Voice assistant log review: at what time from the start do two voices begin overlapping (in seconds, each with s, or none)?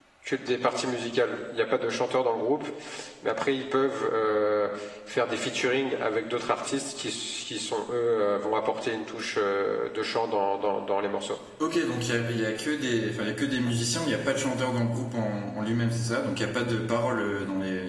none